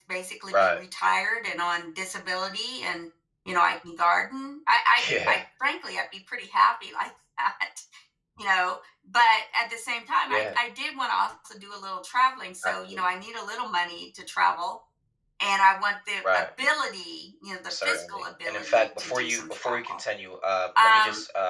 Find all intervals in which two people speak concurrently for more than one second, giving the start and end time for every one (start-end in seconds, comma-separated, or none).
17.8-20.0